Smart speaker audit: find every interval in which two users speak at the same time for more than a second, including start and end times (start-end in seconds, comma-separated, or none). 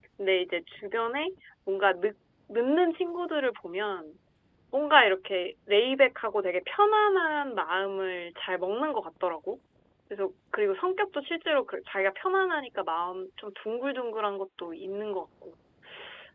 none